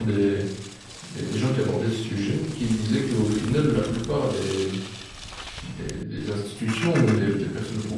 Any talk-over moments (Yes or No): No